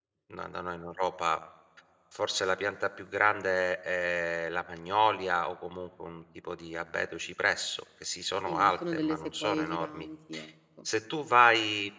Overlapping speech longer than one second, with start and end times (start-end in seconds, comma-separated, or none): 8.4-10.1